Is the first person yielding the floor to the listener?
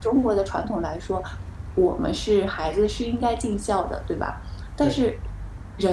No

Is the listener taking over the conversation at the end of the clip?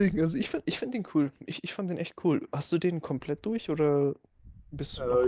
Yes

